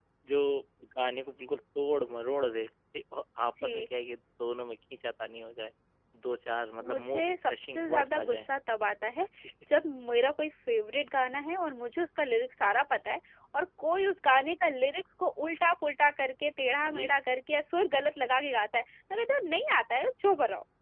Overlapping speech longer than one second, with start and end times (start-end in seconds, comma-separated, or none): 6.8-8.5